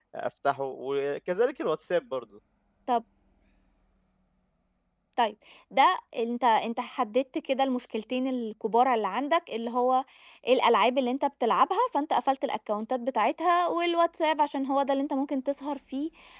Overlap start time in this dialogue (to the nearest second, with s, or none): none